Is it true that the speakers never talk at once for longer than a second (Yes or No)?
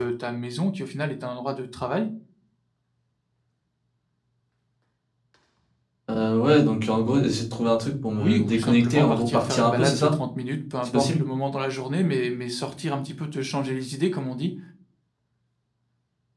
No